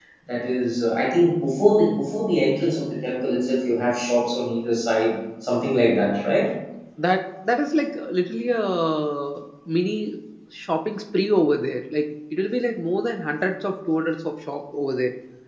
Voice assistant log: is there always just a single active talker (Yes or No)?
Yes